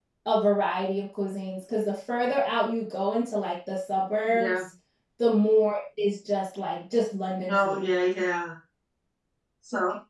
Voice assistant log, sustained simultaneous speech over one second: none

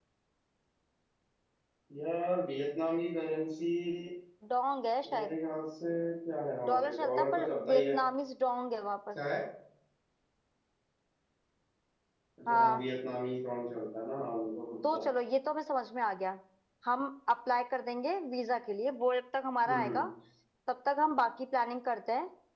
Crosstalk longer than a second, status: present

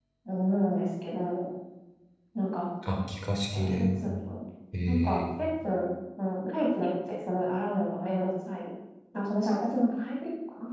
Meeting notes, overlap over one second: none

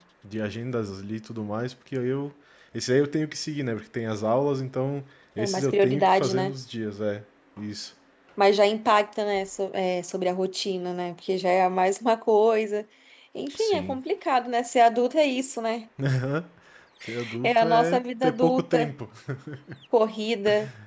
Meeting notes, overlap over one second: present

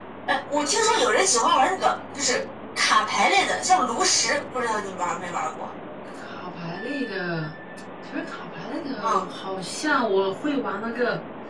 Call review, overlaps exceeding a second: none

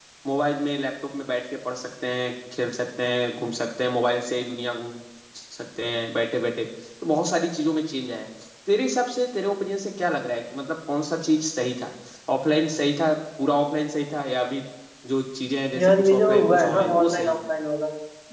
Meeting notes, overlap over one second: present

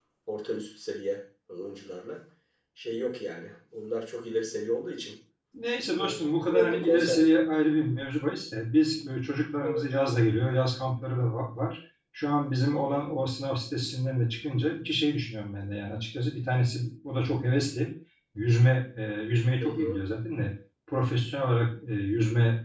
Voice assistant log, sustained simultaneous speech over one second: present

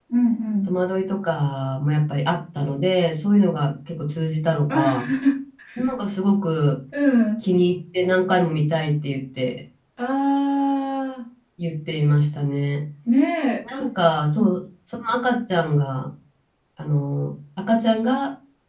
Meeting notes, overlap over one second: none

